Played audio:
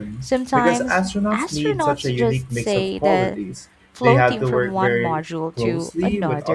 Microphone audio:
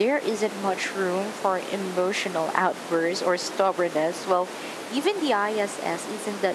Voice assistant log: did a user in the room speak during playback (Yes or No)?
Yes